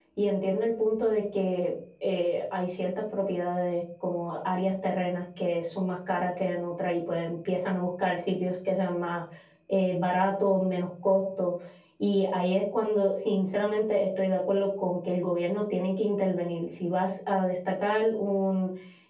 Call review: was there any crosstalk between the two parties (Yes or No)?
No